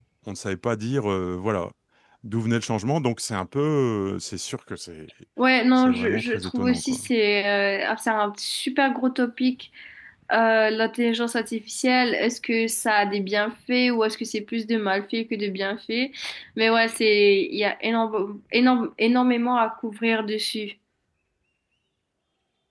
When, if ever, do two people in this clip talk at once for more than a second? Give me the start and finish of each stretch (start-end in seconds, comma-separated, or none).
5.8-7.0